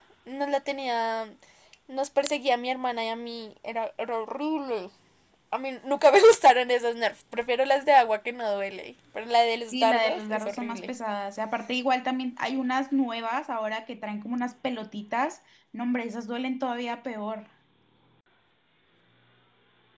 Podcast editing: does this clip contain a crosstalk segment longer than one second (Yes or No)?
Yes